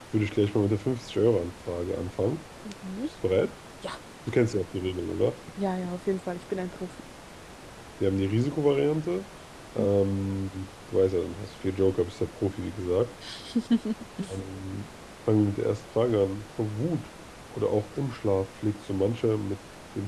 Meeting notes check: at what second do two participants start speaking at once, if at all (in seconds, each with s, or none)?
none